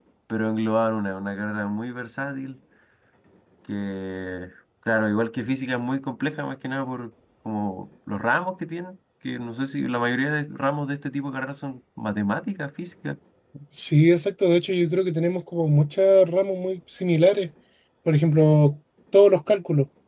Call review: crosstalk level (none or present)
none